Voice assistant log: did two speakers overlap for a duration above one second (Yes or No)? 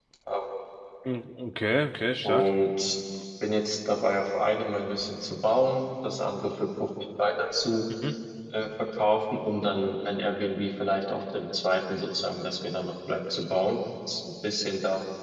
No